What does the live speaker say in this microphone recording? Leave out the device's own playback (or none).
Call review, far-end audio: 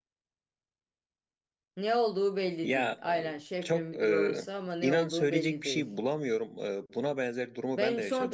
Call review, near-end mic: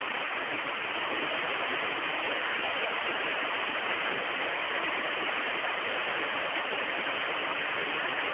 none